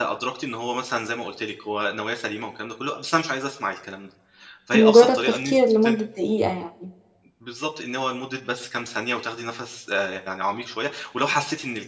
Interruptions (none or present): present